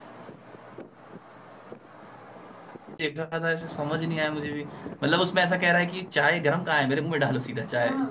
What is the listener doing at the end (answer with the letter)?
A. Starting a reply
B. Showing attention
A